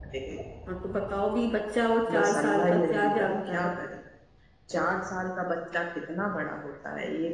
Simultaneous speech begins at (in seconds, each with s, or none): 2.1 s